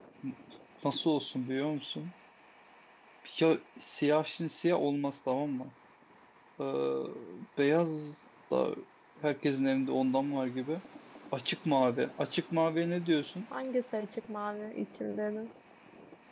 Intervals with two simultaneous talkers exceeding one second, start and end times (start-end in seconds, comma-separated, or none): none